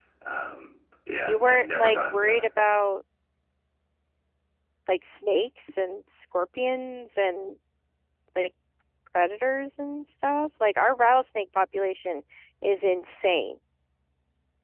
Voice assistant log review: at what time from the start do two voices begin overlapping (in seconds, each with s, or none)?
1.2 s